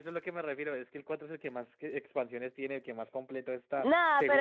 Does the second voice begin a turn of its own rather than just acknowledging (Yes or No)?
Yes